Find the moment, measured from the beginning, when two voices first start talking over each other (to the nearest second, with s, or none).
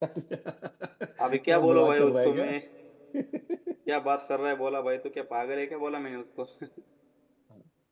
1 s